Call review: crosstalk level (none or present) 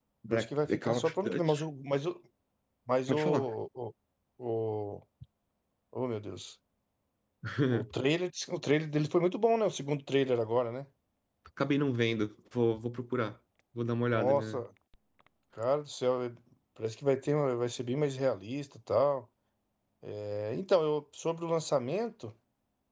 present